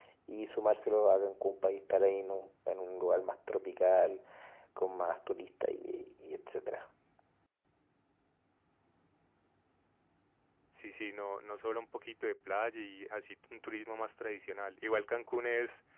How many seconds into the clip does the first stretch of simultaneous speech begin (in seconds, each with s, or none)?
none